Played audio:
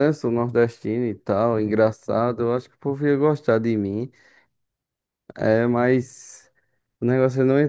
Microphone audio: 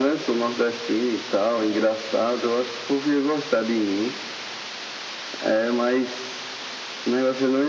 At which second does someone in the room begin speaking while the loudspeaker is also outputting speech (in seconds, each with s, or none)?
none